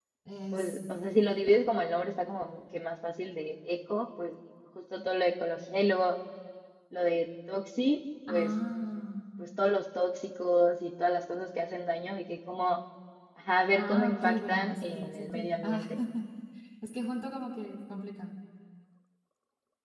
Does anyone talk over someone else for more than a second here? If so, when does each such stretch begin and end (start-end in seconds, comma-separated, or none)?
13.7-15.9